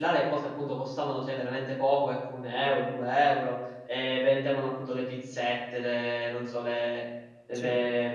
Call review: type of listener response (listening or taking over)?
listening